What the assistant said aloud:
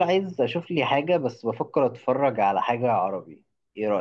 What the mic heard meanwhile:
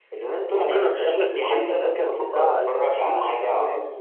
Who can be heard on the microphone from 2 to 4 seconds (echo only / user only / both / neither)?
both